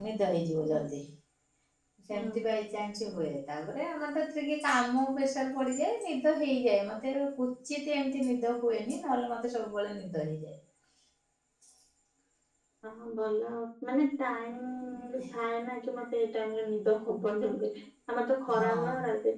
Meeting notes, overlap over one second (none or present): none